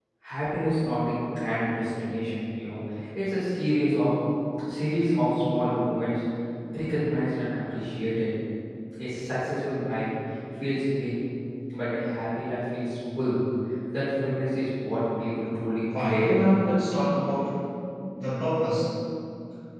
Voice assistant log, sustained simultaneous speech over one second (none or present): none